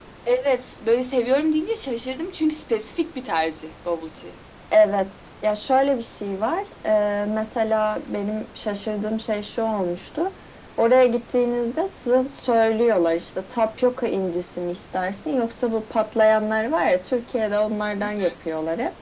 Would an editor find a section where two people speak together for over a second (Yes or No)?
No